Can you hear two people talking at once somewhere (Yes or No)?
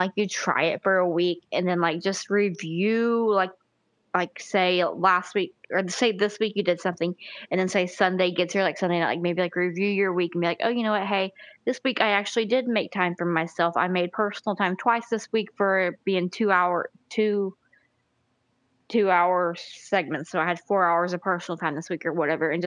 No